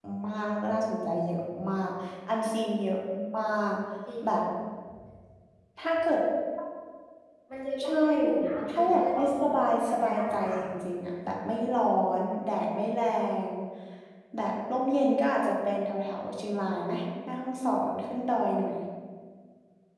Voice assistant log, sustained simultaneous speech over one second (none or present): present